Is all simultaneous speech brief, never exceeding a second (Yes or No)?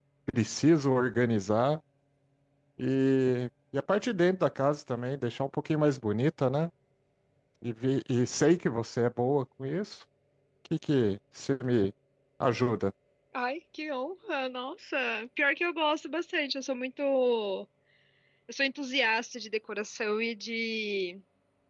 Yes